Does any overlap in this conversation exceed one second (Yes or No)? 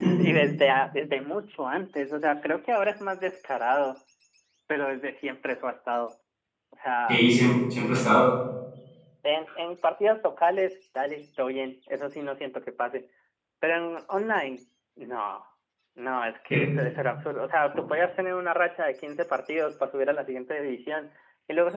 No